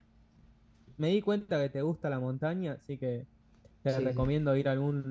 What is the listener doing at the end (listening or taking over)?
listening